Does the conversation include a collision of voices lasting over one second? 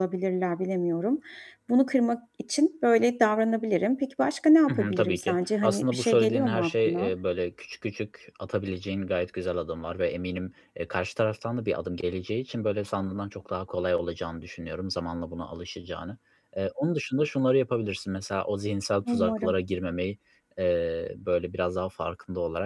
Yes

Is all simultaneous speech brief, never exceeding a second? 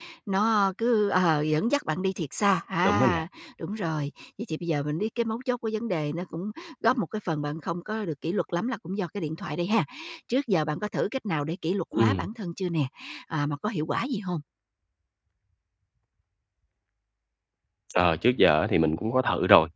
Yes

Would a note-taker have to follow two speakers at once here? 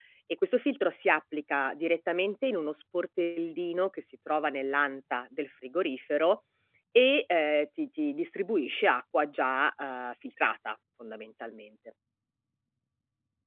No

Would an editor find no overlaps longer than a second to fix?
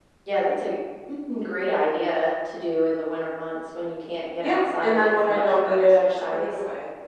No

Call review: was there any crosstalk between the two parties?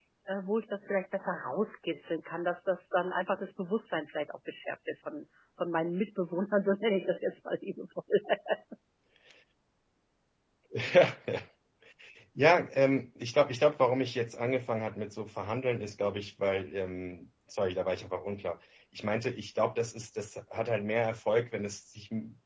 No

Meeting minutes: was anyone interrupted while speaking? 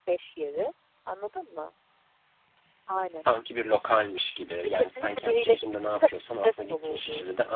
Yes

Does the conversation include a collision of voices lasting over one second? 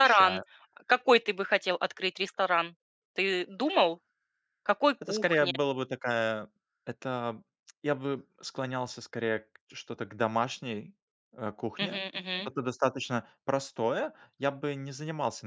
No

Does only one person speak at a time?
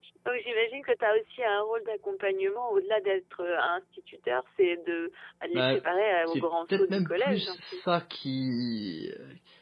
No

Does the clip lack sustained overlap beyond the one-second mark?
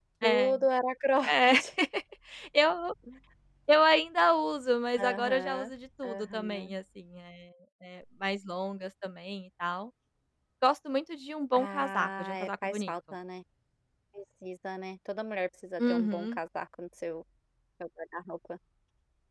No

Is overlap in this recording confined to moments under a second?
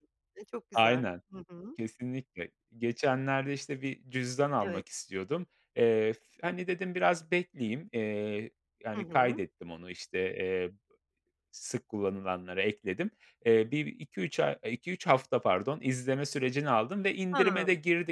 Yes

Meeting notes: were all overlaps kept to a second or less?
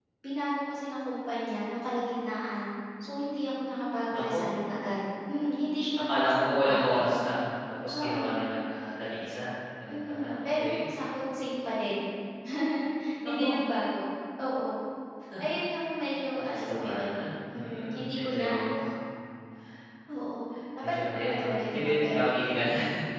No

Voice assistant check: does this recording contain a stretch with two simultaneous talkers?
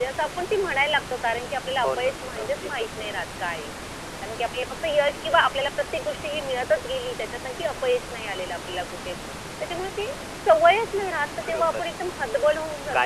Yes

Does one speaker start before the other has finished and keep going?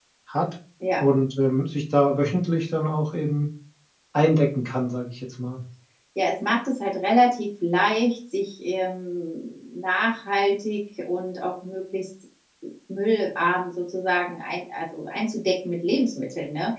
No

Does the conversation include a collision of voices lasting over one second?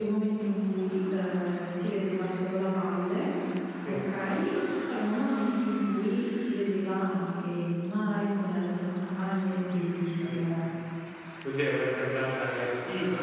No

